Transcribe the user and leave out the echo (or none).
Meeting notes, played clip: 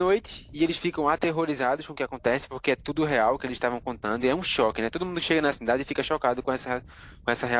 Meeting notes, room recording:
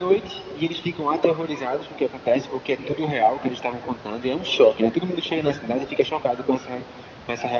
none